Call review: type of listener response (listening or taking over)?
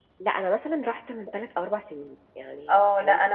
taking over